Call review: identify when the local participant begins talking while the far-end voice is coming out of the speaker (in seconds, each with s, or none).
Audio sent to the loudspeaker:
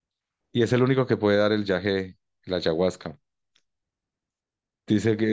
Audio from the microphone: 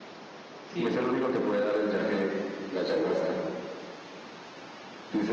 0.6 s